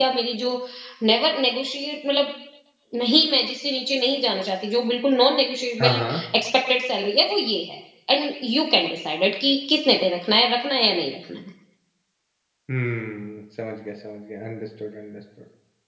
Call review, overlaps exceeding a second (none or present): none